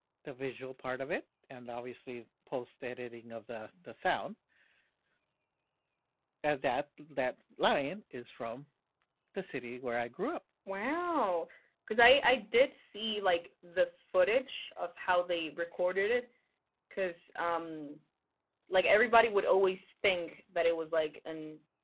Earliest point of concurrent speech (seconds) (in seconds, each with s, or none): none